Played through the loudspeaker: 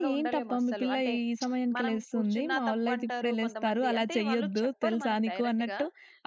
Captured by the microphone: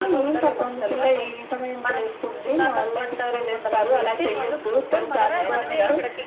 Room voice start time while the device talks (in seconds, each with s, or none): 5.2 s